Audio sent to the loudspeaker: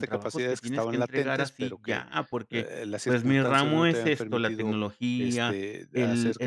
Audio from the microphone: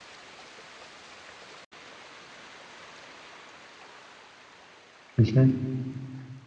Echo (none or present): none